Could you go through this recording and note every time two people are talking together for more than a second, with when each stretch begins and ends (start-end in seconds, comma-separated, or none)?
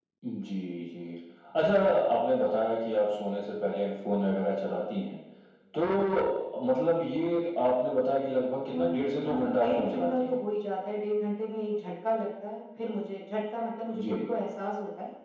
8.7-10.4